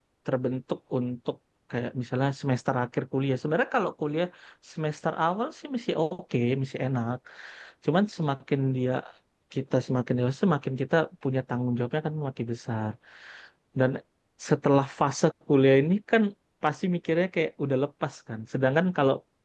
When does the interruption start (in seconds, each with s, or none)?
none